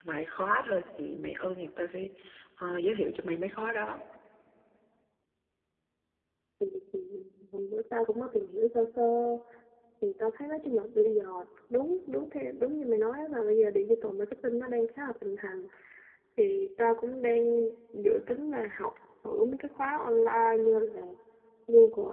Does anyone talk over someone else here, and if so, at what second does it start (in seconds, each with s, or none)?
none